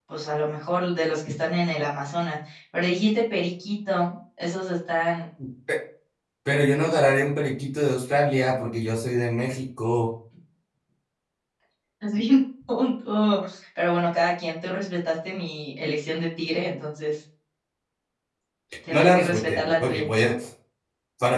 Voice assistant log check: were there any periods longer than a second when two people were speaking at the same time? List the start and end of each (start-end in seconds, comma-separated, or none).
18.9-20.1